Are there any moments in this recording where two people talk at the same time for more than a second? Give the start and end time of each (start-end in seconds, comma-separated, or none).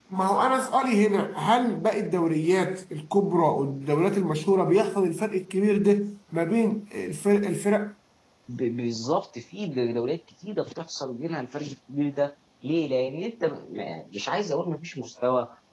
none